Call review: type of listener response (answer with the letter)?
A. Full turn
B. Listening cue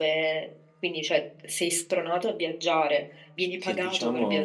A